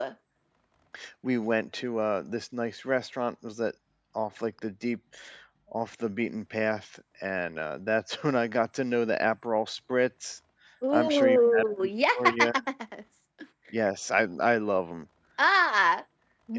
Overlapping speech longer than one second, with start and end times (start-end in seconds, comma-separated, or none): 10.9-12.5